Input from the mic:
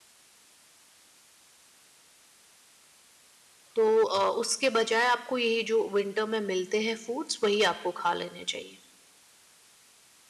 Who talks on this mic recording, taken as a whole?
user only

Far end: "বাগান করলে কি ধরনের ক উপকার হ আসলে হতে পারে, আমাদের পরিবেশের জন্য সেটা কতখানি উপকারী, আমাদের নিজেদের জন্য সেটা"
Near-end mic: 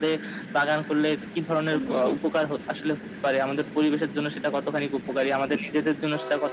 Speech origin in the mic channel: both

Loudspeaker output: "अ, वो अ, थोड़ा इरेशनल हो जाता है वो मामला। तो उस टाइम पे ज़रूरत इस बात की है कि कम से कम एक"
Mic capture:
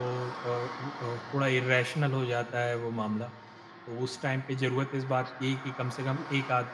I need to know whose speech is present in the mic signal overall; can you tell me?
echo only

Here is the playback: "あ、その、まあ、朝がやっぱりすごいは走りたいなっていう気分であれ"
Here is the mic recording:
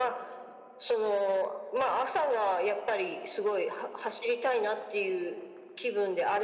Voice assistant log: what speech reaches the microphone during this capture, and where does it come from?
echo only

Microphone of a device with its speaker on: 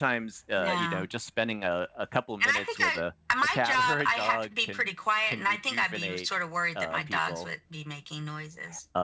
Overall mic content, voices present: both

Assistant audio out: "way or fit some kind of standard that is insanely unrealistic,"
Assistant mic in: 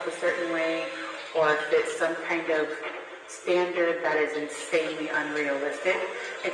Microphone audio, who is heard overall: echo only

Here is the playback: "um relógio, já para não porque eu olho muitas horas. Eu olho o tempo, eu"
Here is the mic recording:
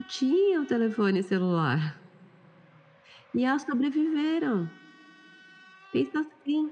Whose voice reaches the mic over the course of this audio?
user only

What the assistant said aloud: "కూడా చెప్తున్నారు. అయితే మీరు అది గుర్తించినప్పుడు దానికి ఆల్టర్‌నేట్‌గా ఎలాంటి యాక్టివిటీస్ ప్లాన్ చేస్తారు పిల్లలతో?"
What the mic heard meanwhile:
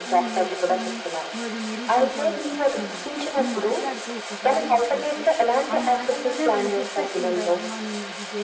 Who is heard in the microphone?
both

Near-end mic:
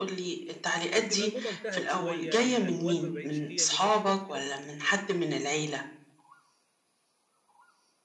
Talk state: both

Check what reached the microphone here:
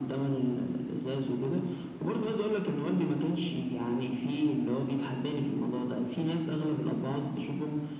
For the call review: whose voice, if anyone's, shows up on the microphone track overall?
echo only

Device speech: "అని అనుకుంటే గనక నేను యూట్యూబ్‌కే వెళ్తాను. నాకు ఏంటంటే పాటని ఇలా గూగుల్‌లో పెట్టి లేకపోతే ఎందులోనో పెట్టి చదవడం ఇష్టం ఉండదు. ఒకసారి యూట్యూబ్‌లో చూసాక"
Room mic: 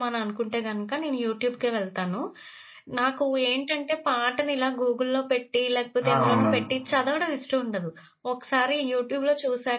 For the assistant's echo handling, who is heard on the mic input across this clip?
both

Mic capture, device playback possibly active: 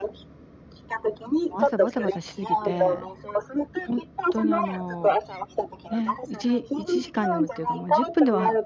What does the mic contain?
both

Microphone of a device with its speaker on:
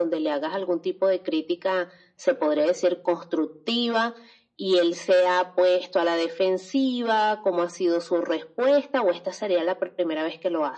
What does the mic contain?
echo only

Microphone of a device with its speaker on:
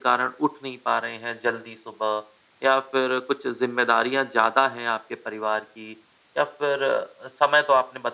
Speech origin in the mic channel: echo only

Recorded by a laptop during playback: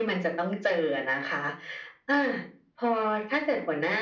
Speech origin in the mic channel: echo only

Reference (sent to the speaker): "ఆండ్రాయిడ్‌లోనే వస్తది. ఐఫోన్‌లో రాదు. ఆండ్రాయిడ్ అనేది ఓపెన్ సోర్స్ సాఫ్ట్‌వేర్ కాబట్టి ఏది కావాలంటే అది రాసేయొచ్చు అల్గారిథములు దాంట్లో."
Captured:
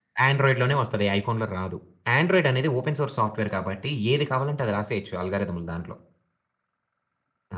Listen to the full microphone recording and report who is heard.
echo only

